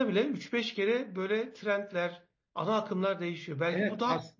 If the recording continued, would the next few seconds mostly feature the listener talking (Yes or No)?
Yes